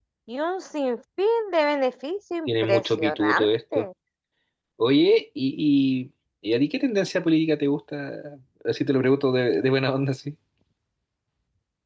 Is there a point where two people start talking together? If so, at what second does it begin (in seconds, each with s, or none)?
2.5 s